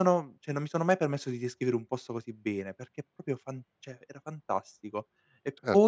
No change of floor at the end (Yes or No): No